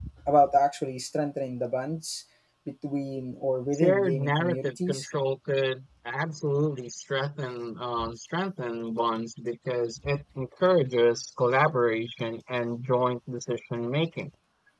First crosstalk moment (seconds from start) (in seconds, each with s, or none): 3.7 s